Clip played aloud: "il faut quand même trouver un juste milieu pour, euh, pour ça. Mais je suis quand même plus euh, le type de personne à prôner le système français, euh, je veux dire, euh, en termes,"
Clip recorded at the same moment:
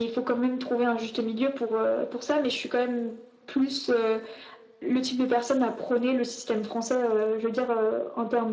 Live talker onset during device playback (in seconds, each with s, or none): none